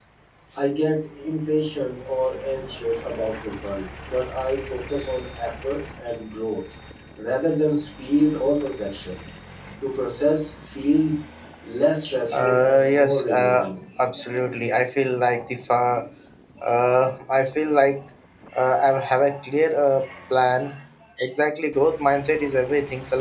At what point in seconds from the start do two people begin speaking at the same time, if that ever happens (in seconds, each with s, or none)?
12.4 s